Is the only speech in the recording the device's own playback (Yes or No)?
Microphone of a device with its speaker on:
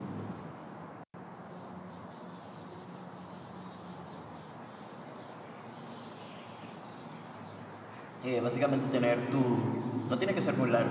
No